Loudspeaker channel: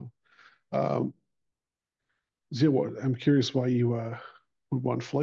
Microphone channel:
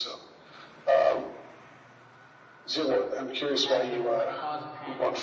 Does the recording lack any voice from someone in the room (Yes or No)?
No